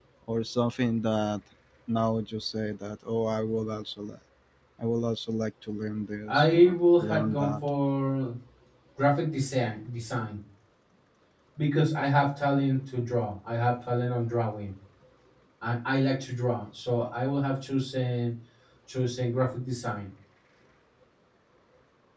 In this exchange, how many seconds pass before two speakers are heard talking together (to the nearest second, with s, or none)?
6 s